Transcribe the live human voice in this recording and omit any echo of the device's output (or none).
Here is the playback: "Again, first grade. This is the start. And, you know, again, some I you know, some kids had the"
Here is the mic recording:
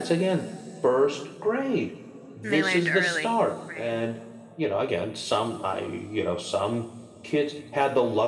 And they learned early, right?